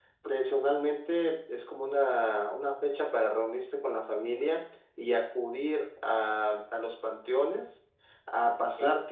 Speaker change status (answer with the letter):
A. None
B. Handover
A